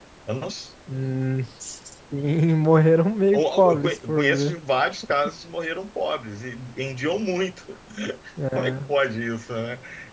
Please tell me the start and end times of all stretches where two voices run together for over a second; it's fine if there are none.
3.3-4.6

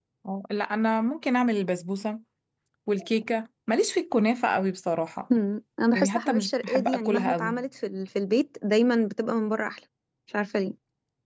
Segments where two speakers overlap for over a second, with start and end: 5.9-7.6

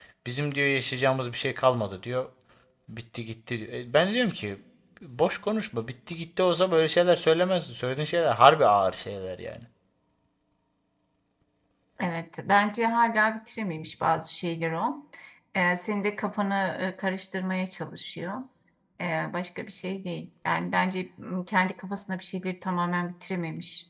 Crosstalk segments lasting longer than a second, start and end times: none

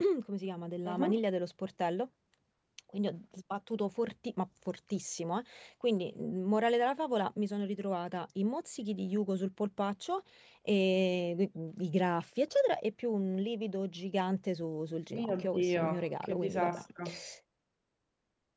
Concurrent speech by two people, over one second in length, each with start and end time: 15.1-16.8

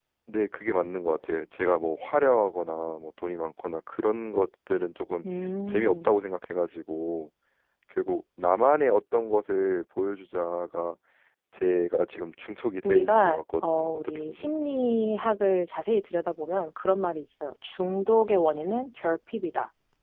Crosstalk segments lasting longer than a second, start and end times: 12.8-14.5

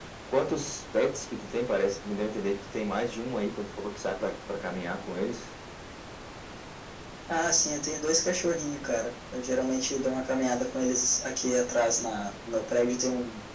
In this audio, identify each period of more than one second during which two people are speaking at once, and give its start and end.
none

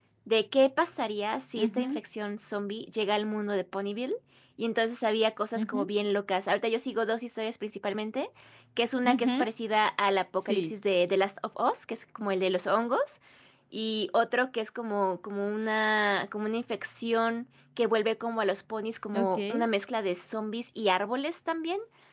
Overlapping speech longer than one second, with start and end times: none

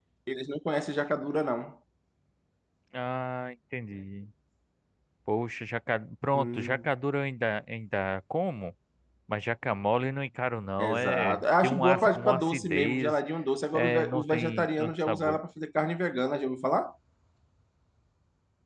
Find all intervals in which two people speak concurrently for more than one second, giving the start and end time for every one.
10.8-13.2, 13.7-15.4

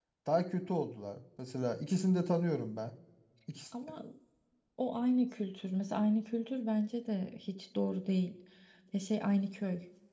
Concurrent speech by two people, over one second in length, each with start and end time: none

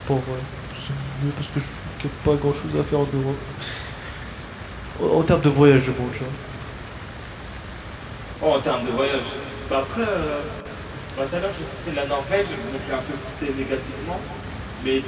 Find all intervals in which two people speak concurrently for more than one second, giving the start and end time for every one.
none

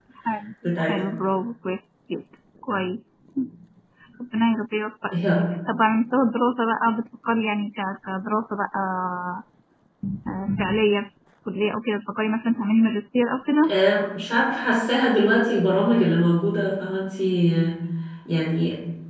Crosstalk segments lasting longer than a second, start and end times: none

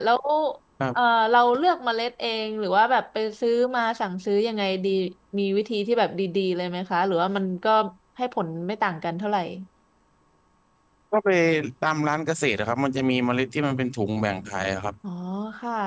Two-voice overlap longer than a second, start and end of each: none

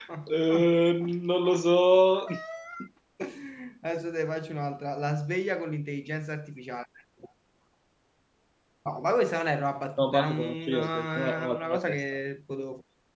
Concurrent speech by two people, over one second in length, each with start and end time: 10.0-12.0

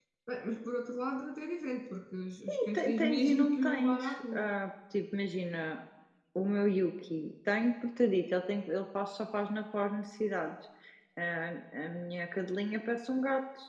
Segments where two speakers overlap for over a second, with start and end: 2.5-4.5

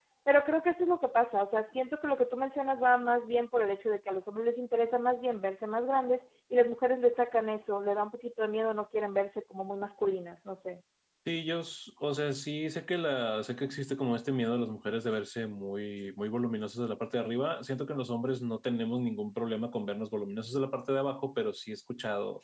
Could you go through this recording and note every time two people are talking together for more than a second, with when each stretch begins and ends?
none

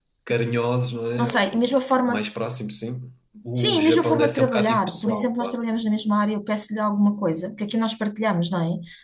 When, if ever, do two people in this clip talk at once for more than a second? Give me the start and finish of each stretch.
3.5-5.6

